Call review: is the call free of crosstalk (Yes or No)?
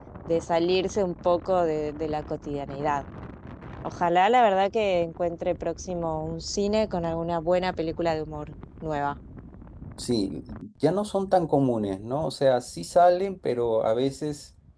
Yes